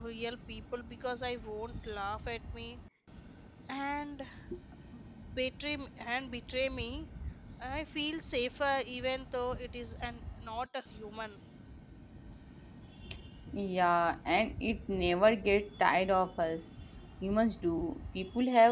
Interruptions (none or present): none